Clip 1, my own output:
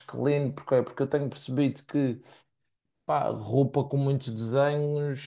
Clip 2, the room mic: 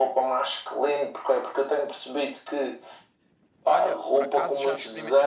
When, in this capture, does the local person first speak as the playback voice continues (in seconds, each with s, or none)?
3.6 s